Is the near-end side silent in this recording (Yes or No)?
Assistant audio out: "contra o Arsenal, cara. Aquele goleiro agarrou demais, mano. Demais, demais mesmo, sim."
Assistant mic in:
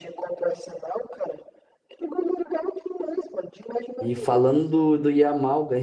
No